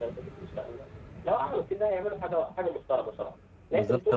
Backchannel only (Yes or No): No